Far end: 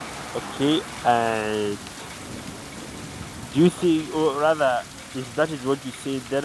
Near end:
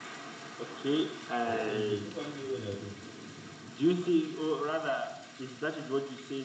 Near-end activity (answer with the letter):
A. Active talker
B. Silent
A